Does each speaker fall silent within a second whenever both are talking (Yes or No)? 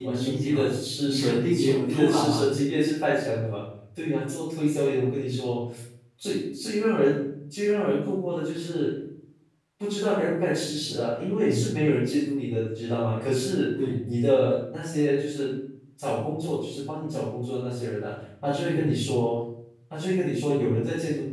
No